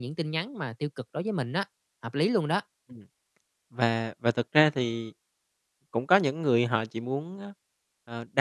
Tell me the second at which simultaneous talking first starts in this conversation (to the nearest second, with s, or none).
none